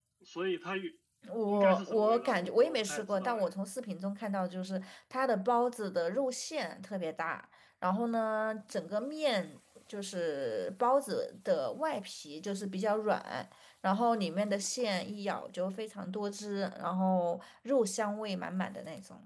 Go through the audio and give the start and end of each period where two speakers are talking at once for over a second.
1.4-3.5

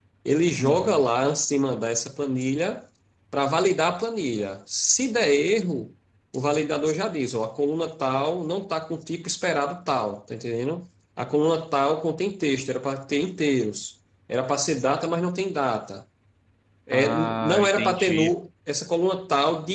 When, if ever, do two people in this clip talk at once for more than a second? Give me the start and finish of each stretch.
16.9-18.3

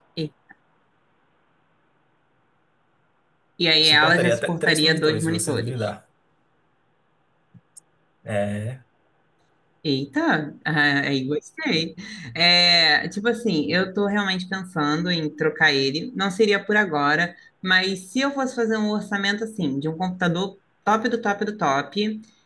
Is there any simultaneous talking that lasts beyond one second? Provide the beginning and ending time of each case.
3.8-5.8

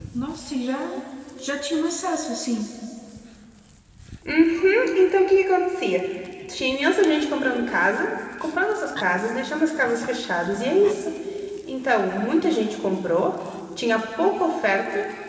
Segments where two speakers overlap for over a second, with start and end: none

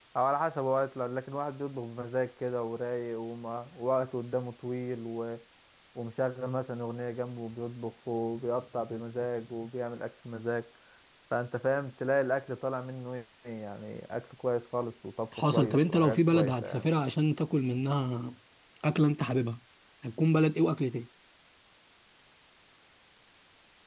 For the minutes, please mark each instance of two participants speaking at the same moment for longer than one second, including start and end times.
15.5-16.9

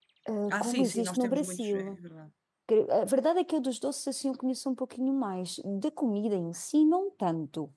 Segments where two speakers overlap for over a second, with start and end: 0.5-2.0

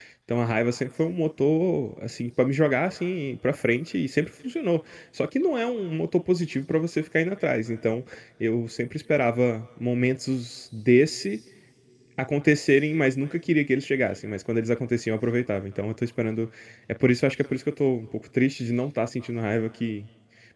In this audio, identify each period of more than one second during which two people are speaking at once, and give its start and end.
none

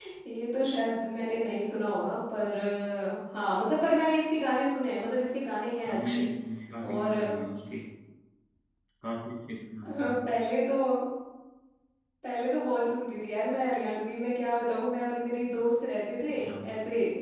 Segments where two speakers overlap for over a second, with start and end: none

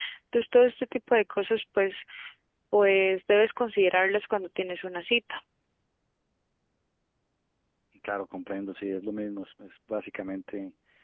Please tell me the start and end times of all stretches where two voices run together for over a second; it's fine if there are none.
none

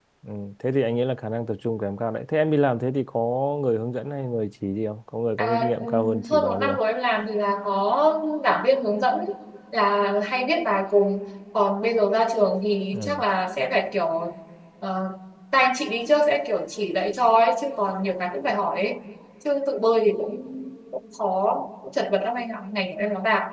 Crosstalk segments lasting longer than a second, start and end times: 5.4-6.8

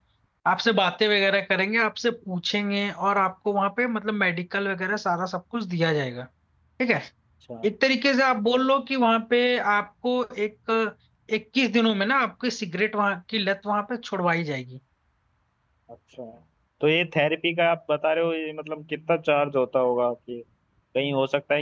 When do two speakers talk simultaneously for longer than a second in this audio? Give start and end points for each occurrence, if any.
none

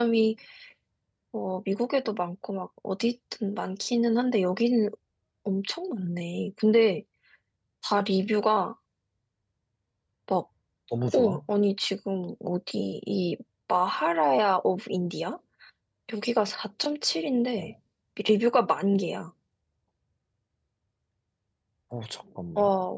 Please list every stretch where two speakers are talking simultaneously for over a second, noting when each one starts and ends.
none

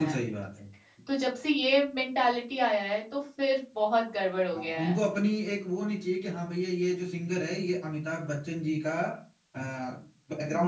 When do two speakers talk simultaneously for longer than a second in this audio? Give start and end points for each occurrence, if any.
none

